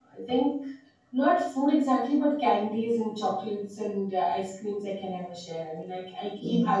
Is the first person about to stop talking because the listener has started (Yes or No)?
No